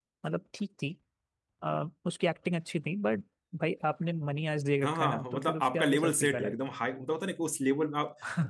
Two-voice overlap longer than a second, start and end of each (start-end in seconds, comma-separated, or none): 4.8-6.5